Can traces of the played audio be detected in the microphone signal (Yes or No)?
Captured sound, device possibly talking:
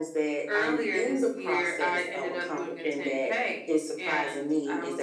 Yes